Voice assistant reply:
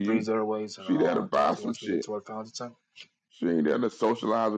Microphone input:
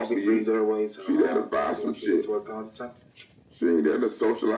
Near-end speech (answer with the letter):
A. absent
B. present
A